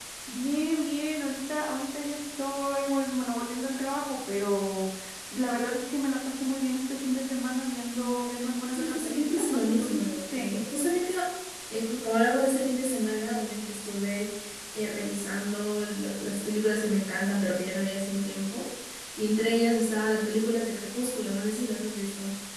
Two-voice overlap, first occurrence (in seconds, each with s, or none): 8.7 s